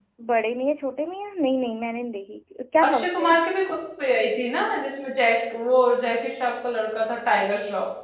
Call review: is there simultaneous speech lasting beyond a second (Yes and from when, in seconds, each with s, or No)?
No